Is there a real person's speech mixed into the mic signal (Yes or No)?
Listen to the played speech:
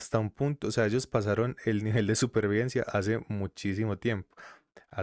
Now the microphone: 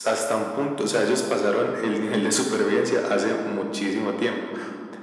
No